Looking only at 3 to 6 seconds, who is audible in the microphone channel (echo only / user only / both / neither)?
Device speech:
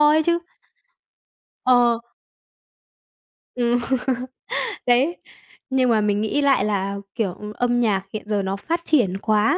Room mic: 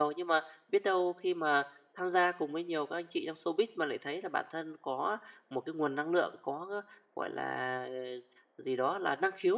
user only